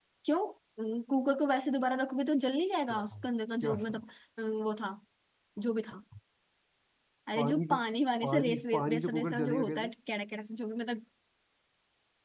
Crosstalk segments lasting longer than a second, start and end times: 8.2-9.9

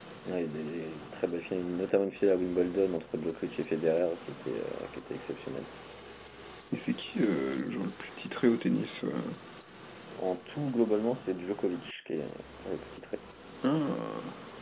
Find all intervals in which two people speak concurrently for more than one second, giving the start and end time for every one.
none

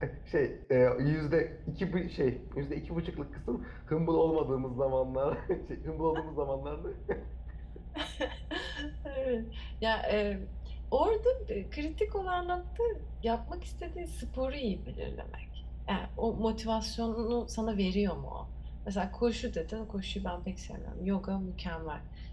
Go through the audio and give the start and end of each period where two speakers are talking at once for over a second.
none

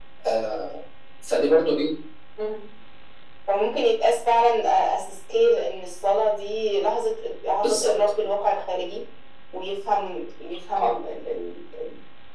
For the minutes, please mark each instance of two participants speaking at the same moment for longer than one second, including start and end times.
none

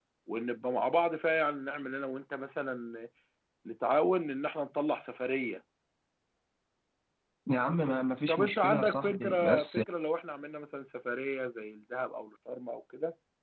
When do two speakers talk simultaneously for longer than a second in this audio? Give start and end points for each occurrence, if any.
8.3-9.8

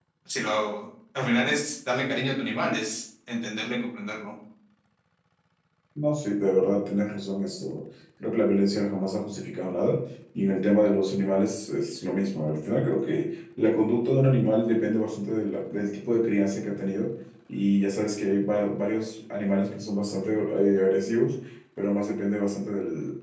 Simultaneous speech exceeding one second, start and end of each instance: none

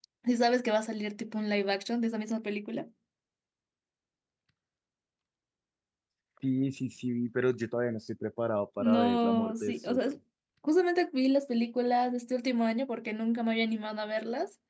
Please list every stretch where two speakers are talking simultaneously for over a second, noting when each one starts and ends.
8.8-10.0

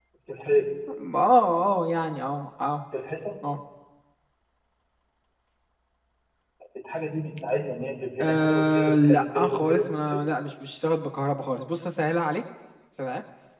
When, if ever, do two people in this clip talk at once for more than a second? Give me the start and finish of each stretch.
8.2-10.2

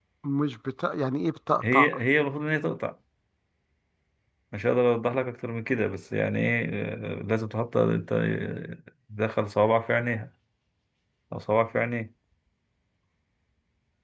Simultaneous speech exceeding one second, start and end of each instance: none

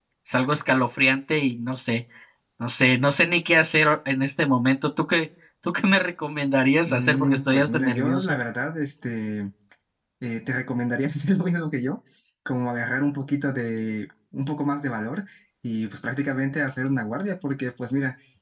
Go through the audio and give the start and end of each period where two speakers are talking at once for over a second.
6.9-8.4

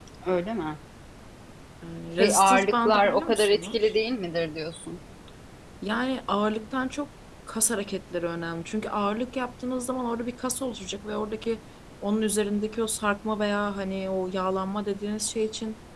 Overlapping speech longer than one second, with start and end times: 2.2-3.9

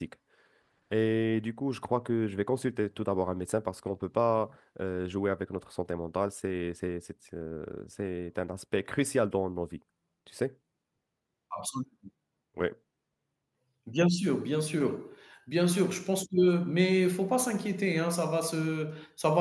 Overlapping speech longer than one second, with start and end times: none

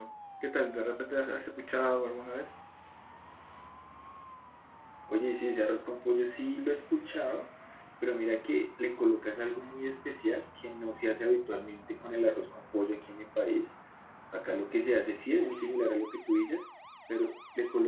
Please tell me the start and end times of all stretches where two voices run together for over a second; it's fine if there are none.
none

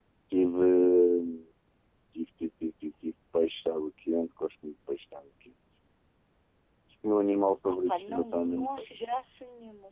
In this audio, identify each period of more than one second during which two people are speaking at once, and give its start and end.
7.7-9.0

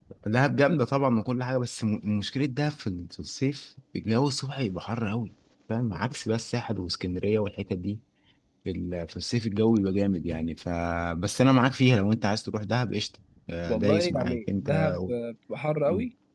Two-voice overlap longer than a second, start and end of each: 13.7-15.1

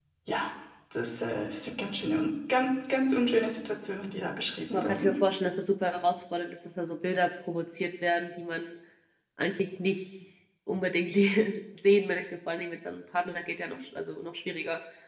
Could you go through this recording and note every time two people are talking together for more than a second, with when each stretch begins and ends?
none

